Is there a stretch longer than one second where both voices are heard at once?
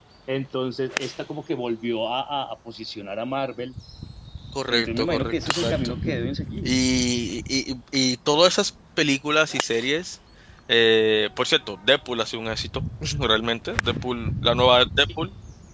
Yes, from 4.7 s

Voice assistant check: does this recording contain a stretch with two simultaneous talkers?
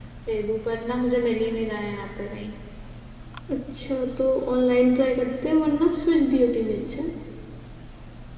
No

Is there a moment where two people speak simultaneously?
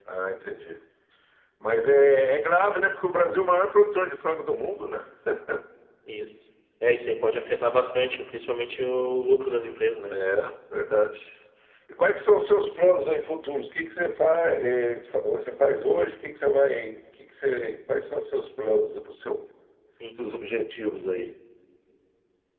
No

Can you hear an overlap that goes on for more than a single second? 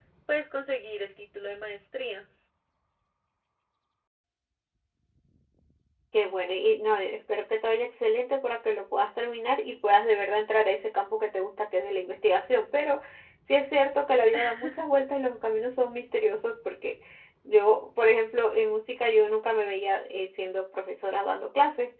No

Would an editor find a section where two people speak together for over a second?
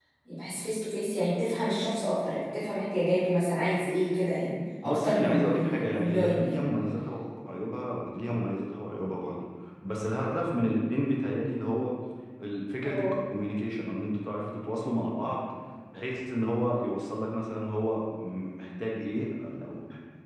Yes, from 4.8 s

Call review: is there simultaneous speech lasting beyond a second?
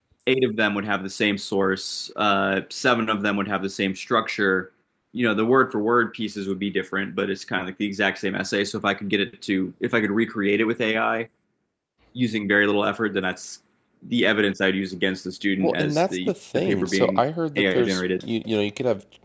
Yes, from 15.6 s

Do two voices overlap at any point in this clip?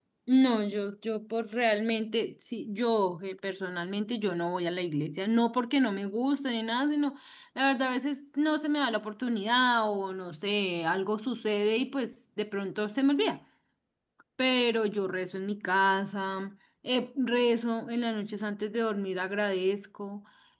No

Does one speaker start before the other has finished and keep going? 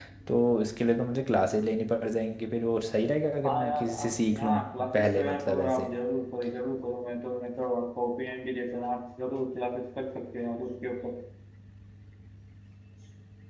Yes, from 3.4 s

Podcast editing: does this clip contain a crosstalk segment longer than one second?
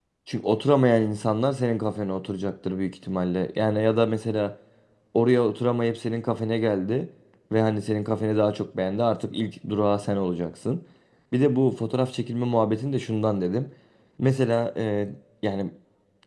No

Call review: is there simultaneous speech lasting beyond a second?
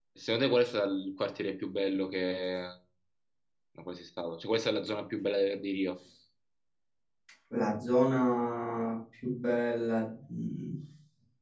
No

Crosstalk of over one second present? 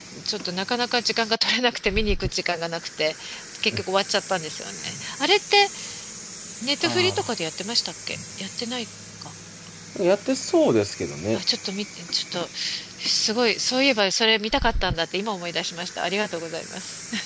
No

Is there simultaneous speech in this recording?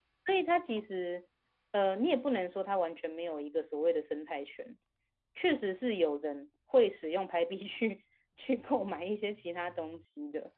No

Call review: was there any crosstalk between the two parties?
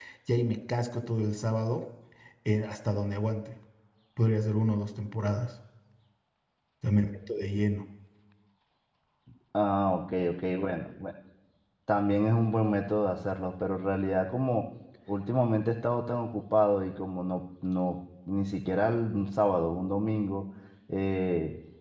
No

